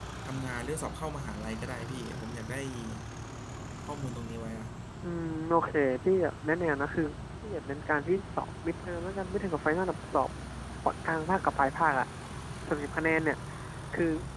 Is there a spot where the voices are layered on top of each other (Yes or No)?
No